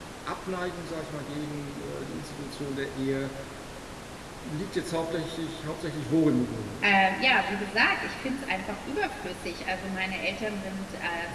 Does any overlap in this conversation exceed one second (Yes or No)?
No